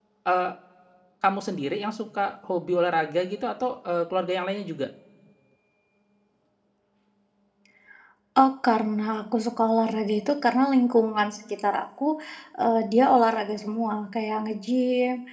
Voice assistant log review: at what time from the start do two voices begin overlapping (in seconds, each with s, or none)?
none